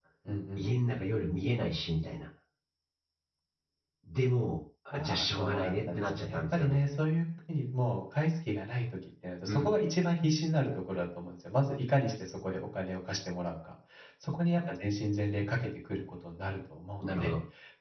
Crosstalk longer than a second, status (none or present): present